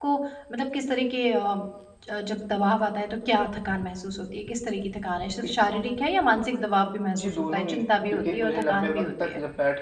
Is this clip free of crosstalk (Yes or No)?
No